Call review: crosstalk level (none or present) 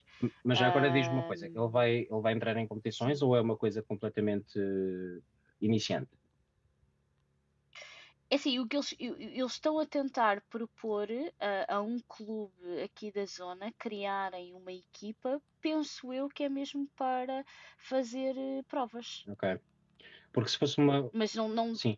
present